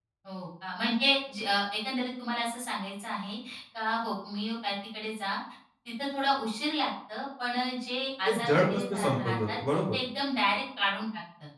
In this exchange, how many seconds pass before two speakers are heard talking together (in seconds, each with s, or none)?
8.2 s